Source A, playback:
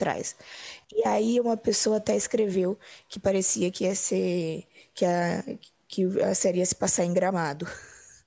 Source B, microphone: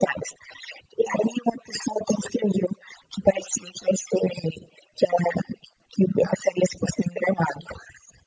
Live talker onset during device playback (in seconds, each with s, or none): none